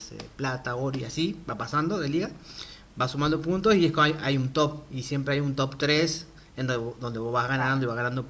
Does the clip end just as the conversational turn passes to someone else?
No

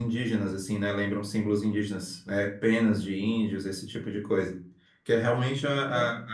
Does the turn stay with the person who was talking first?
Yes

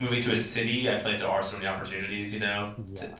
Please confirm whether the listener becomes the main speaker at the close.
No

